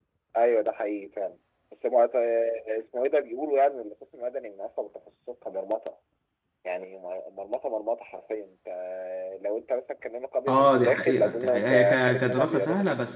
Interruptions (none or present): present